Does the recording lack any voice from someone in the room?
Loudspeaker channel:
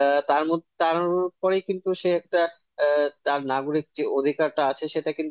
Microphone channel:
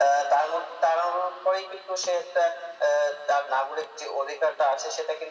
Yes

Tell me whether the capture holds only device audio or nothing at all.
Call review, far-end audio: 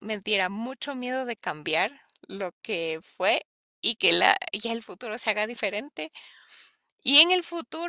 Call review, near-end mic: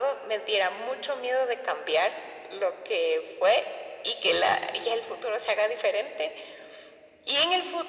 Yes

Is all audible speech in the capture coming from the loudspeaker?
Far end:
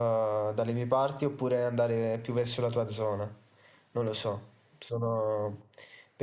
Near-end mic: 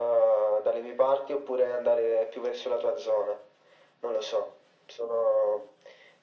Yes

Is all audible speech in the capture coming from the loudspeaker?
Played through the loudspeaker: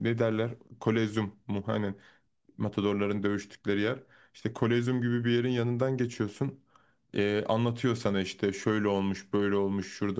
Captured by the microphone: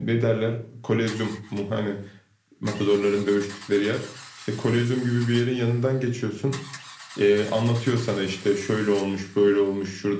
Yes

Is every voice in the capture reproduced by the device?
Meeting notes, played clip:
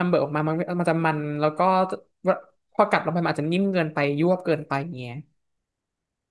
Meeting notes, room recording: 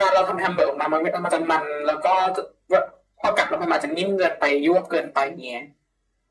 Yes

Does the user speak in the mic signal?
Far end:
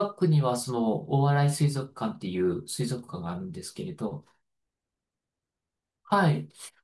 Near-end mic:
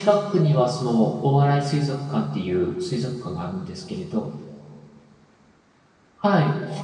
No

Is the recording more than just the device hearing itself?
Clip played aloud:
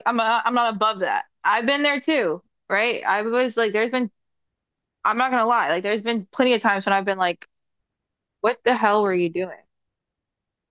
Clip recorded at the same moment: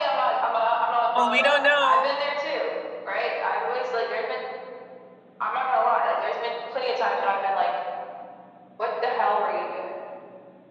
Yes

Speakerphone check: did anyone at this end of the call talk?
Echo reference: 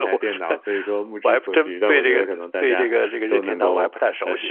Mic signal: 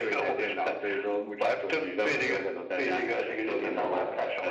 No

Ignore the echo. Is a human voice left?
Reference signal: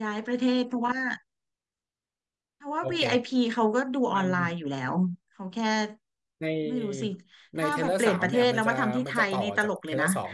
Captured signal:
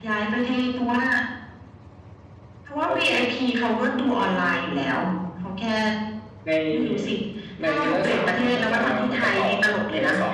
No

